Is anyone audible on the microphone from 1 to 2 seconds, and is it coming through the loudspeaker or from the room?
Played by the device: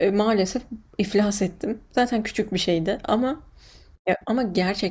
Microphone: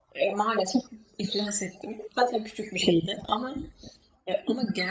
echo only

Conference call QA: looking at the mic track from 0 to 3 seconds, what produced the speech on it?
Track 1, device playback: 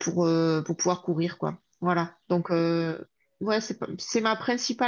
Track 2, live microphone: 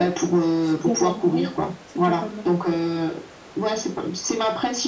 both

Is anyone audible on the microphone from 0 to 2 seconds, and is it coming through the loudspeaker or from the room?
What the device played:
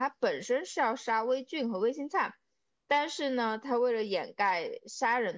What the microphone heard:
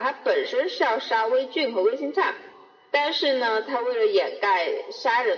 echo only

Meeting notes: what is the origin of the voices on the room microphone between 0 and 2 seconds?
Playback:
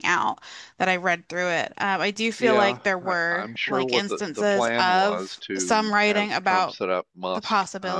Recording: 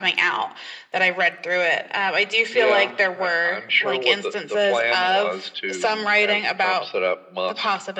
echo only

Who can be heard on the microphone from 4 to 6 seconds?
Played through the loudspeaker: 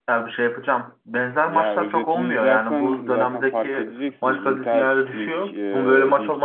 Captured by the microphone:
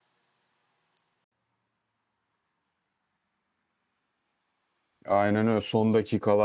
user only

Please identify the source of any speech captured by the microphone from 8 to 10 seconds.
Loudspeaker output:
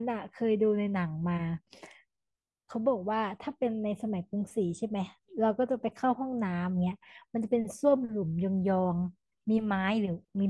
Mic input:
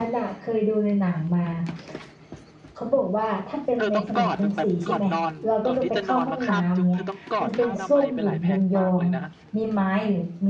both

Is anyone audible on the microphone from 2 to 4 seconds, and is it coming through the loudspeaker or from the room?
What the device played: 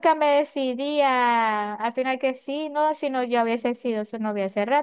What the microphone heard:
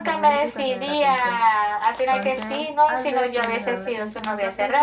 both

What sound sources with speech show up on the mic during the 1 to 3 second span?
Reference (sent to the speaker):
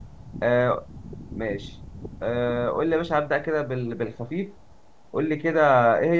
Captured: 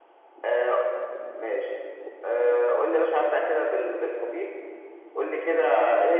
echo only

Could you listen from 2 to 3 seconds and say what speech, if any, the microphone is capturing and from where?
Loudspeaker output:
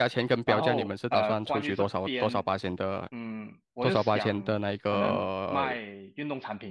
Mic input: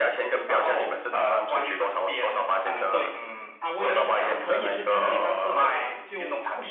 both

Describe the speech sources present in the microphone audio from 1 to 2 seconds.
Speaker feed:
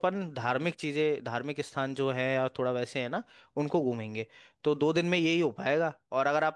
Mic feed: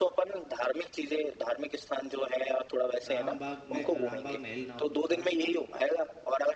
echo only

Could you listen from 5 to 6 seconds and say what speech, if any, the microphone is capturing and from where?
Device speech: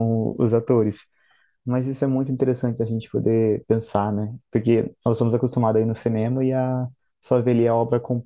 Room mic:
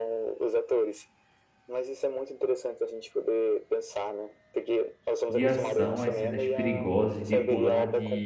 both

